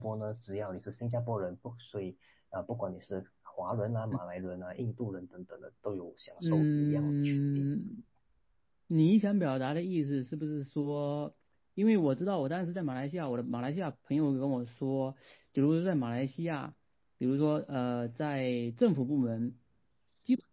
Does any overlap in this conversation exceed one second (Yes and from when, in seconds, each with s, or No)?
Yes, from 6.4 s